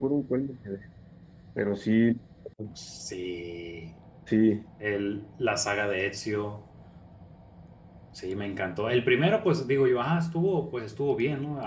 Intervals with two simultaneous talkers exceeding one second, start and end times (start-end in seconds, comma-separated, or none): none